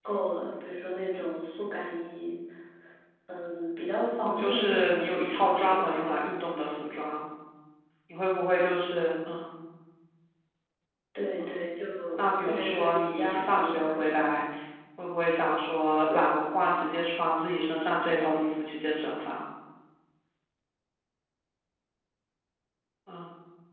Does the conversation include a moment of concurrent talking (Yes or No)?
Yes